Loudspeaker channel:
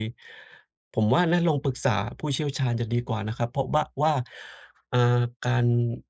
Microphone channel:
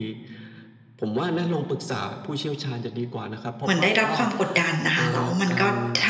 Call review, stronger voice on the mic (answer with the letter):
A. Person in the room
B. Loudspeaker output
A